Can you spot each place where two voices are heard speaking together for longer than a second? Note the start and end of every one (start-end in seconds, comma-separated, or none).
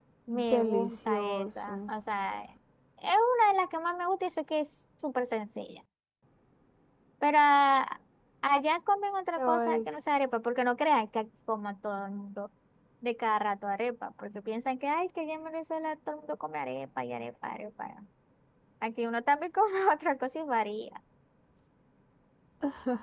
0.5-1.7